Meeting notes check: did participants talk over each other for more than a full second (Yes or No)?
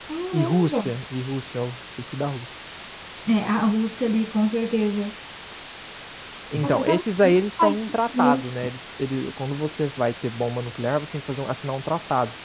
Yes